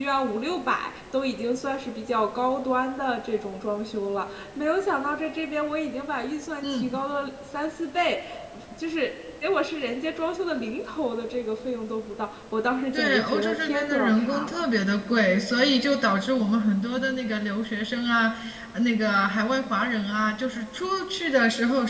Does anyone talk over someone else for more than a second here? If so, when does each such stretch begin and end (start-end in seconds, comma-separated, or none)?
12.9-14.6